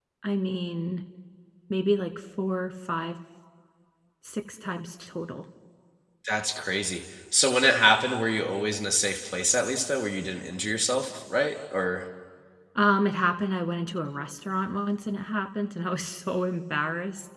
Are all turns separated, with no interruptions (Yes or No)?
Yes